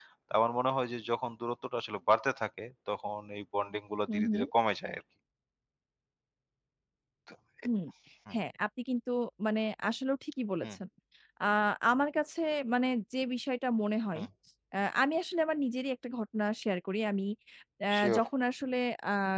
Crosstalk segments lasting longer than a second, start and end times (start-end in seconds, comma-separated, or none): none